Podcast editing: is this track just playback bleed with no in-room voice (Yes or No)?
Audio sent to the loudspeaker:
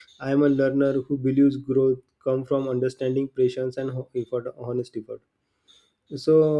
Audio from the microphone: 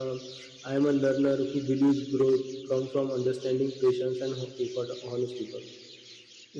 Yes